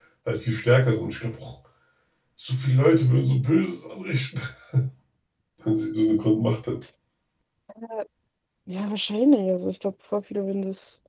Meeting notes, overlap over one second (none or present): none